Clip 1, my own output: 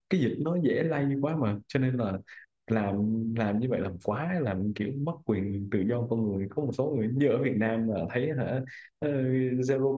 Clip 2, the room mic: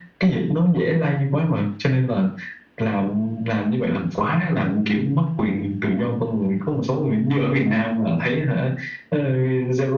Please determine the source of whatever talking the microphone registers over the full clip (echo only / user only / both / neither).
echo only